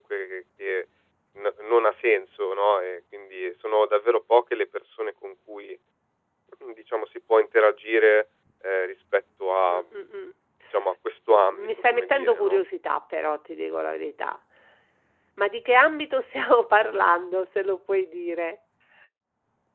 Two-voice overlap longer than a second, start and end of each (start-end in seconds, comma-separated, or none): 11.3-12.6